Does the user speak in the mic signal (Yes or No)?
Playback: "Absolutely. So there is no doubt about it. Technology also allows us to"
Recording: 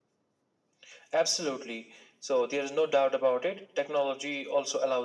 No